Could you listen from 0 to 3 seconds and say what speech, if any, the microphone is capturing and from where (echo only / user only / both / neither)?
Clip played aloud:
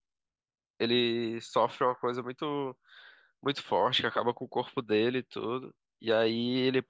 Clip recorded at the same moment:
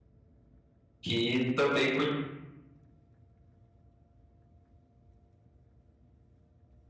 user only